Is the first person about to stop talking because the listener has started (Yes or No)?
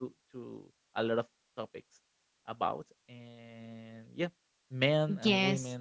Yes